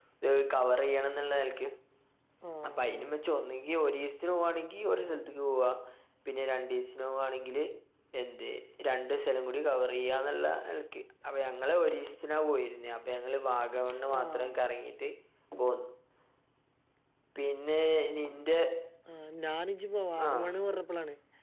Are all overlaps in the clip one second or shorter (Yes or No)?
Yes